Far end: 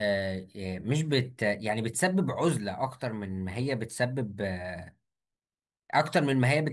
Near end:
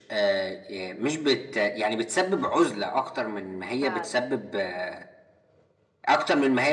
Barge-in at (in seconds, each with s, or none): 3.8 s